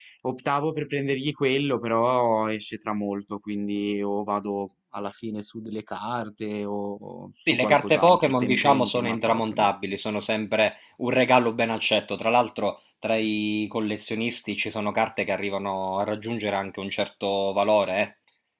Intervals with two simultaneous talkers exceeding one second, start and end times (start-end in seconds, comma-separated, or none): 7.5-9.7